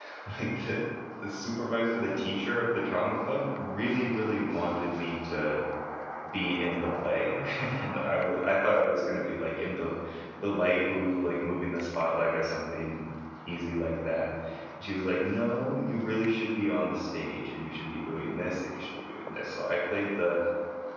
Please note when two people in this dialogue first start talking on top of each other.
none

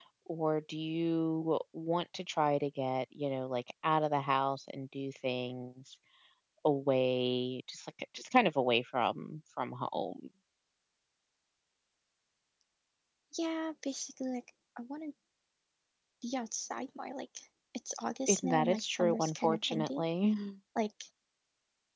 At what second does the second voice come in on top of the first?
18 s

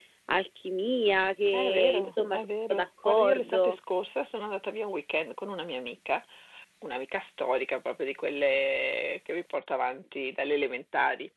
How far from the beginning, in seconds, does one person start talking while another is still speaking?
2 s

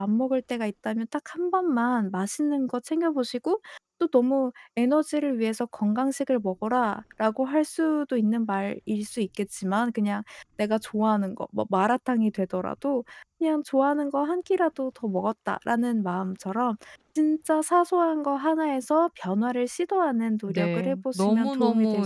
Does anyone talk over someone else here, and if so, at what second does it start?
20 s

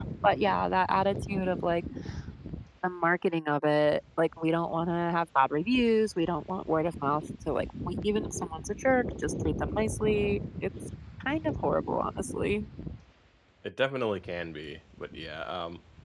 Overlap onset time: none

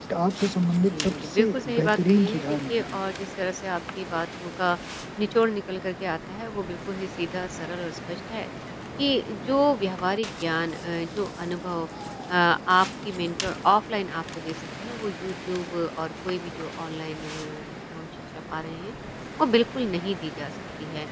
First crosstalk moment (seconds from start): 1 s

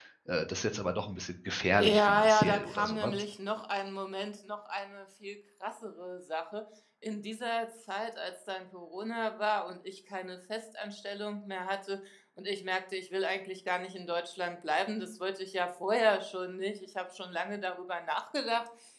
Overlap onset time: 2 s

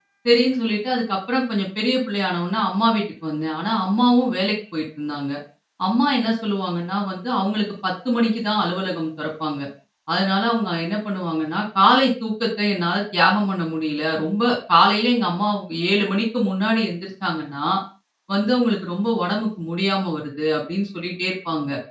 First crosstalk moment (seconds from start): none

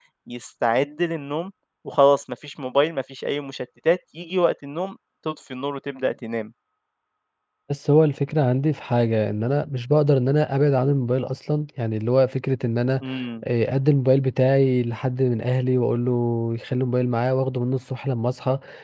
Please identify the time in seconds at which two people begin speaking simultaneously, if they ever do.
none

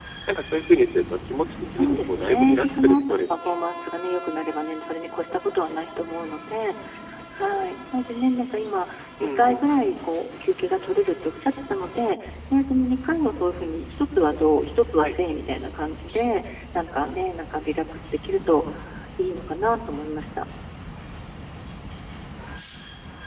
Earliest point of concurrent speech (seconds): 2 s

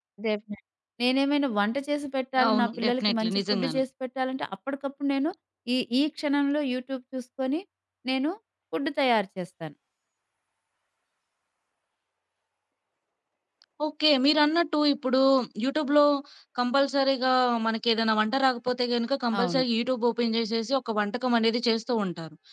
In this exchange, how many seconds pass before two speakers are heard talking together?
2 s

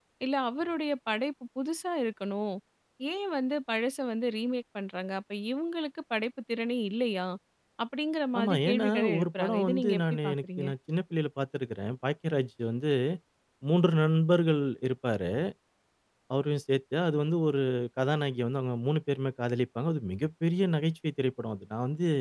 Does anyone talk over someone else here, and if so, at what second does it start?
8 s

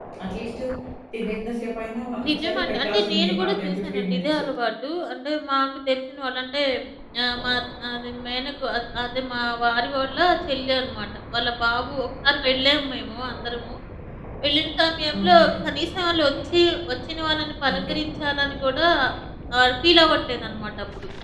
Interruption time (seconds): 2 s

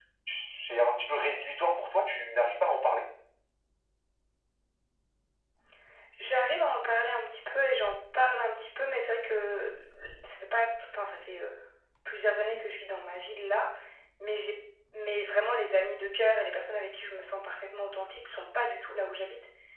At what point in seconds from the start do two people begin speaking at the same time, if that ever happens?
none

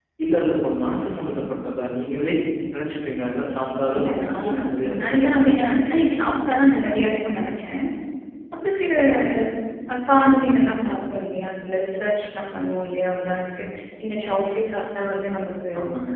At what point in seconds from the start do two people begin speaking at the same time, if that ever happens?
4 s

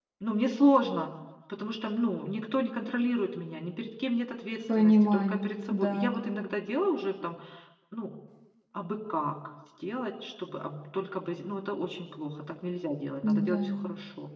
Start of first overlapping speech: 5 s

